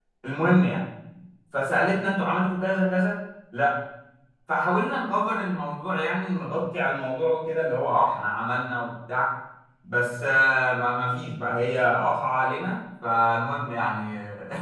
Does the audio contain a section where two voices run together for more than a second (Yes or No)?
No